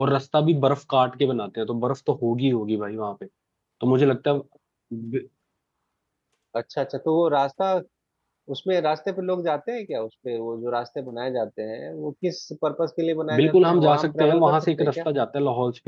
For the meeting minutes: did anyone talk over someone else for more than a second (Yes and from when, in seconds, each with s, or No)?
Yes, from 13.3 s